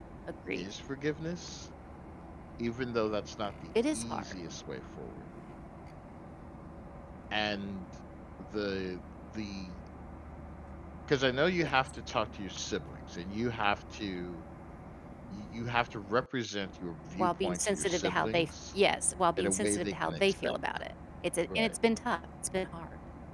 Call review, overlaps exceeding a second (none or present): present